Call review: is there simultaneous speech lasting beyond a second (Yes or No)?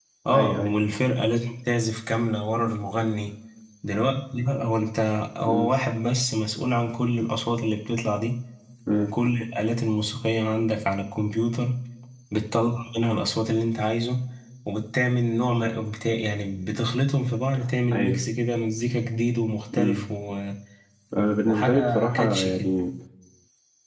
Yes